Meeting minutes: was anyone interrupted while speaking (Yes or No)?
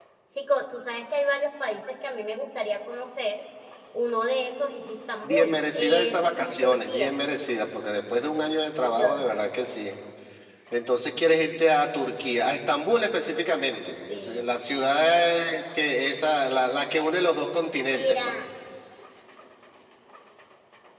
Yes